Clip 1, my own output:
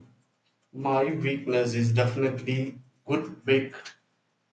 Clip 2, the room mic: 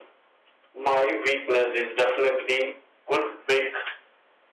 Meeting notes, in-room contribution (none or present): none